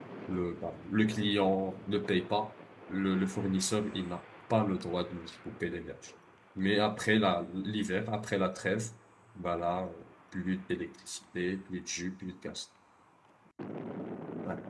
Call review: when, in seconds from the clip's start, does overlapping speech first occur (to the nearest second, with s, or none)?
none